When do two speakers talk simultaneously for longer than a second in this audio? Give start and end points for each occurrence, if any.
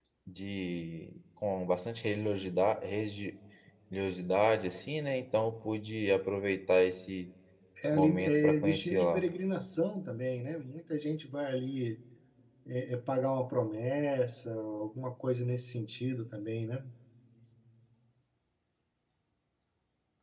7.9-9.3

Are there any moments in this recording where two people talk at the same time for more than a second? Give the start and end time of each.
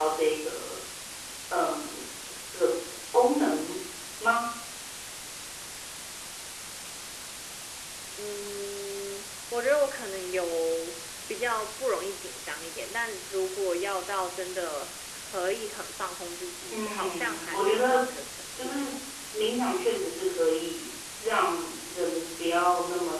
16.7-18.0

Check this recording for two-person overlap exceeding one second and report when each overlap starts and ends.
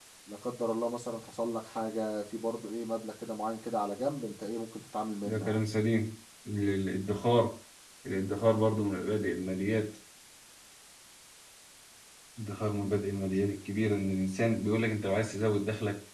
none

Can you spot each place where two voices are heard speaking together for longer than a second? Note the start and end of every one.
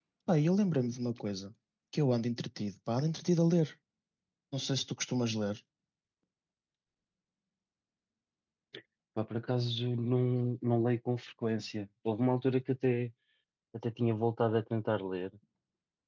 none

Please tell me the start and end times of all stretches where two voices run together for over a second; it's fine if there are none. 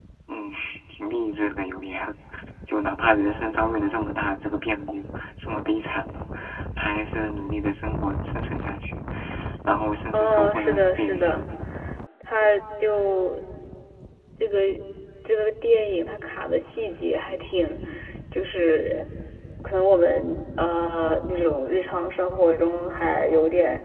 10.1-11.4

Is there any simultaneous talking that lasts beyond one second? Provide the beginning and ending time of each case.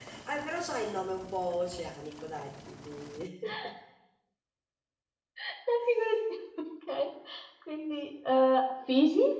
none

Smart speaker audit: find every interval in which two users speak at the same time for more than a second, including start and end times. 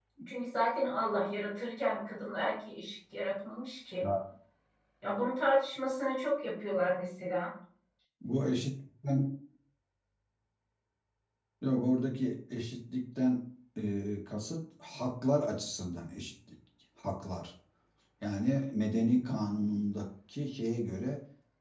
none

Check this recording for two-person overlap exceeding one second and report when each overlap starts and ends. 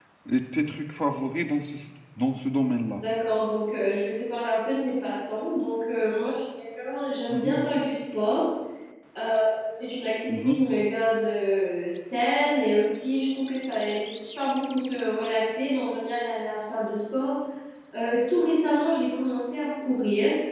none

